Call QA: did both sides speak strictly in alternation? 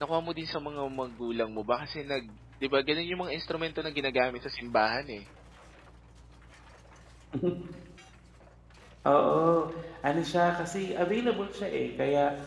Yes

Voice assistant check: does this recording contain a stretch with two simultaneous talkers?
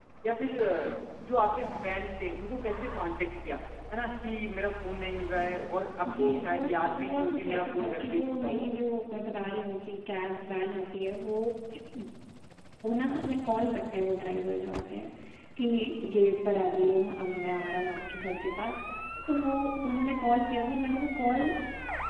Yes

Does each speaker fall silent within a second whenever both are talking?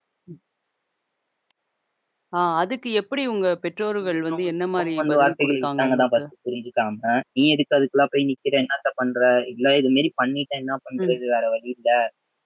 No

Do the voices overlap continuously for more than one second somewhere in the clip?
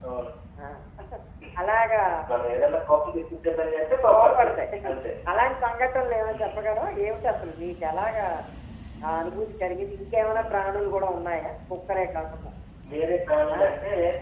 No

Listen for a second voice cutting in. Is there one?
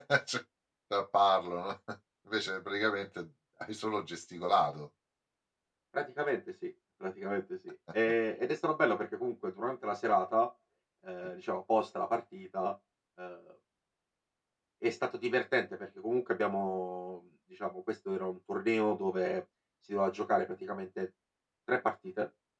No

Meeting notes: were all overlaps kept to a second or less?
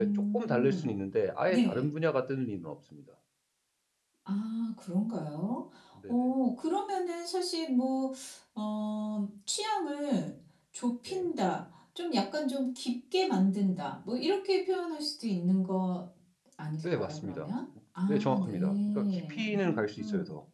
No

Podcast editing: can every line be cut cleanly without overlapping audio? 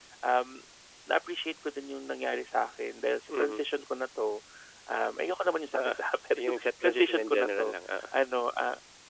No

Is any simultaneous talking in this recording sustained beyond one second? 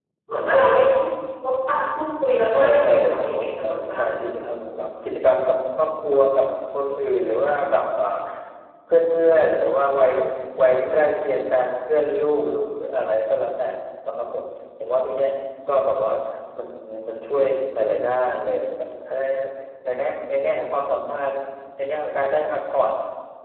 Yes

